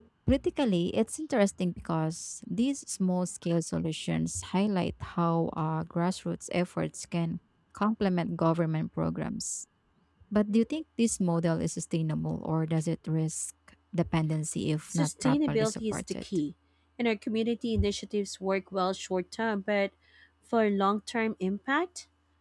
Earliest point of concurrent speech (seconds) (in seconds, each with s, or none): 14.9 s